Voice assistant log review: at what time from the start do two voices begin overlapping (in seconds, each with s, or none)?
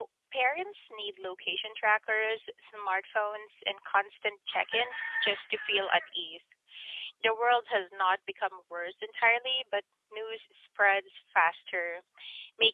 none